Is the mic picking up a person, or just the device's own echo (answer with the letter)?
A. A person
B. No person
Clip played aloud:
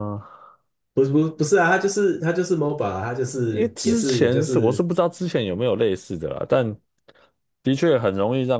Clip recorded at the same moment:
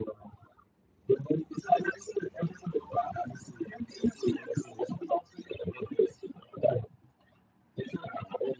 B